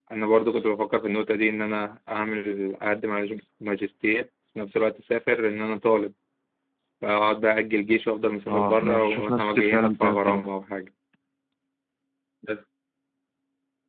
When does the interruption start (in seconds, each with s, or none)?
8.4 s